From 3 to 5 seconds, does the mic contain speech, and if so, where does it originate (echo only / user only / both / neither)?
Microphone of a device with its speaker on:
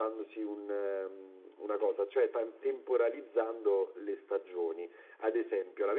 echo only